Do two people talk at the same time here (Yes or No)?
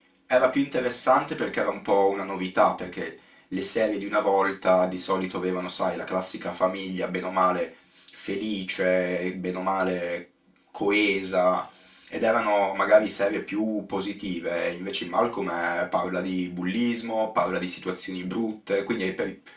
No